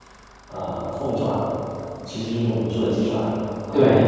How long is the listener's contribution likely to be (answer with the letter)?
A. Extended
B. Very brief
B